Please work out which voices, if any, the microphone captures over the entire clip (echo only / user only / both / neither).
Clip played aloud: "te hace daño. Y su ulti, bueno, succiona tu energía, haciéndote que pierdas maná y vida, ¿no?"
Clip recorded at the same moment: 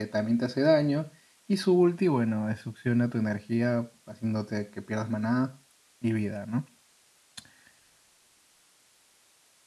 echo only